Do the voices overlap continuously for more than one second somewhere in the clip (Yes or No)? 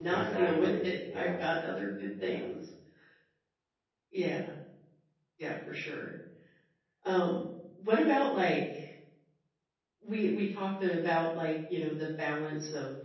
Yes